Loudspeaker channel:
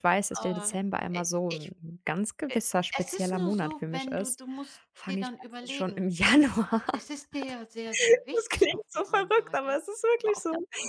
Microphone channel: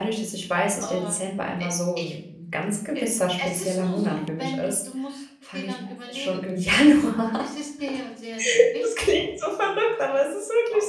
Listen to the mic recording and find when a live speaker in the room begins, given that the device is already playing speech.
none

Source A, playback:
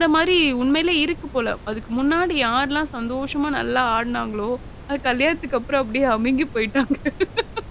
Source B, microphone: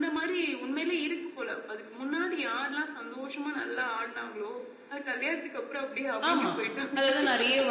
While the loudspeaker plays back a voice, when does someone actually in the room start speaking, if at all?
6.3 s

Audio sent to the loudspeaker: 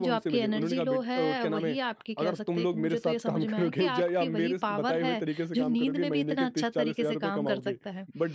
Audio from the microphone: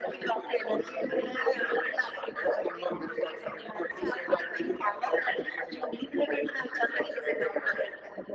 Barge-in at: none

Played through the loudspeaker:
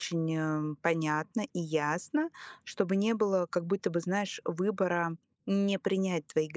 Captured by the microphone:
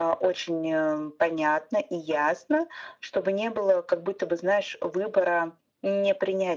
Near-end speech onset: none

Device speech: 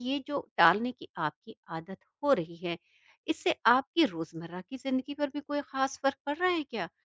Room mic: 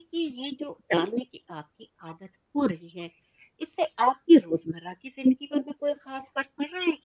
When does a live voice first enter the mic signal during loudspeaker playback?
none

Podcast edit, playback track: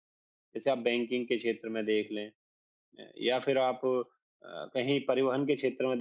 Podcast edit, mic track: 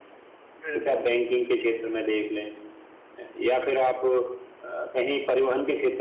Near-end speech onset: 0.6 s

